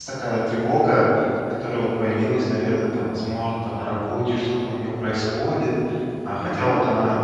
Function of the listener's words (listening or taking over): listening